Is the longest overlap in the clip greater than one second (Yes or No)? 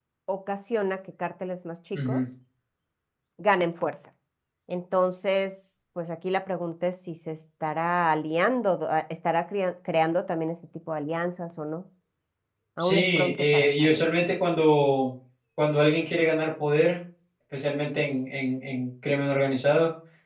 Yes